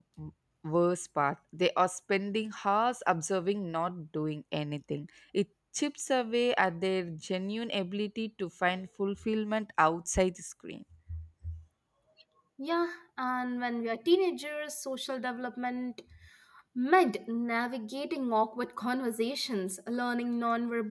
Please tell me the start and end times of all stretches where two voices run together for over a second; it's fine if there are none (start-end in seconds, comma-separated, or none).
none